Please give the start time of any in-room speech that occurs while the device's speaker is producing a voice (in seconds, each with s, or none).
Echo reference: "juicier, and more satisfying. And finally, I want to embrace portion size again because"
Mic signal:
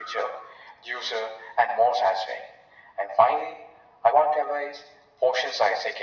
none